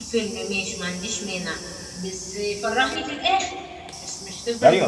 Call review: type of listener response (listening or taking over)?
taking over